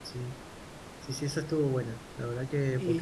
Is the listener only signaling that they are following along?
No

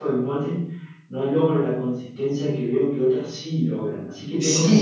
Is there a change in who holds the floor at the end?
Yes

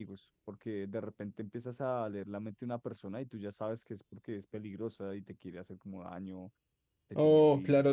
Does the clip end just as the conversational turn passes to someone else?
Yes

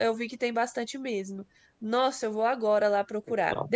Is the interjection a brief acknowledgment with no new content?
Yes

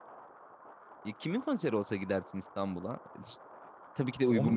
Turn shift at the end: No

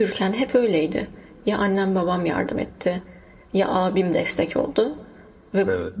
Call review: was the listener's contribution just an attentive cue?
Yes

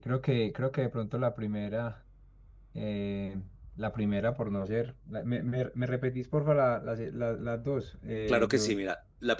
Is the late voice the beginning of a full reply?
Yes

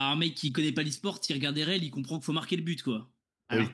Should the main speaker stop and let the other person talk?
No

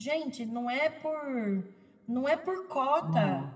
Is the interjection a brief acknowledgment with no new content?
Yes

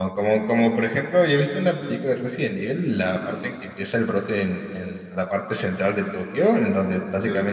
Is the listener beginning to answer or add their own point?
No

